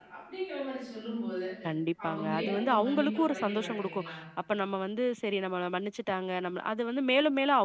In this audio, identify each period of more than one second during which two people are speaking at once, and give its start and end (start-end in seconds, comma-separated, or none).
2.1-4.2